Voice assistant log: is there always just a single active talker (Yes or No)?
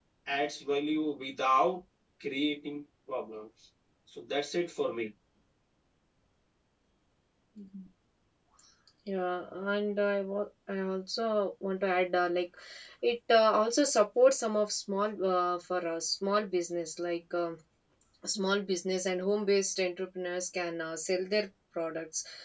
Yes